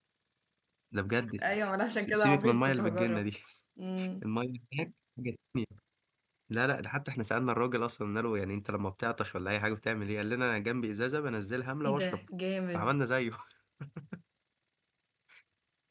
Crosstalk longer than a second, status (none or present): present